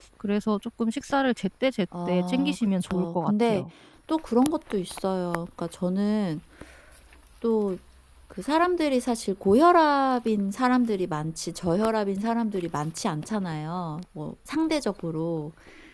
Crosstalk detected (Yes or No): Yes